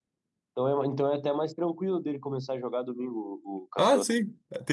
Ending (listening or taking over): taking over